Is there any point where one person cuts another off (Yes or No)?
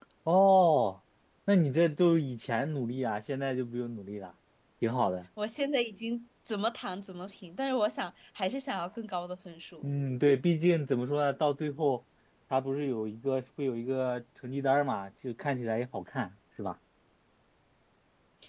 No